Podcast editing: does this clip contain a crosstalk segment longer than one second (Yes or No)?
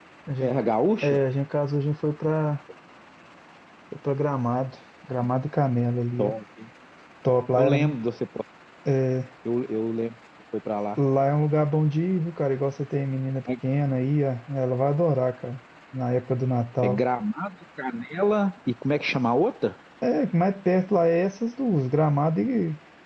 No